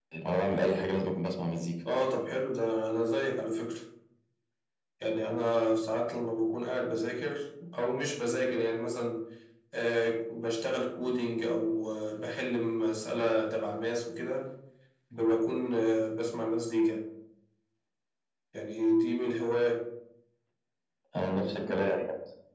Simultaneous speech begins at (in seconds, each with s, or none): none